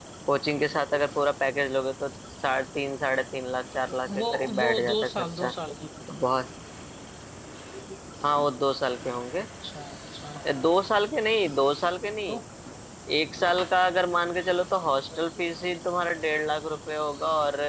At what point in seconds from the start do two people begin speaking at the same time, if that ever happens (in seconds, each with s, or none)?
4.0 s